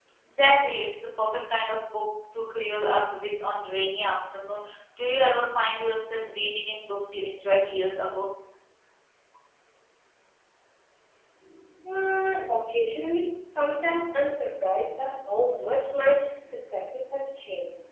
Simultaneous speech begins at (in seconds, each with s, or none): none